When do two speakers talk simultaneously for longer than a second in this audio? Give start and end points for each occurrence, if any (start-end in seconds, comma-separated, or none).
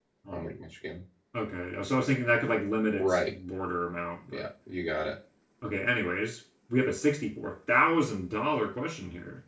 none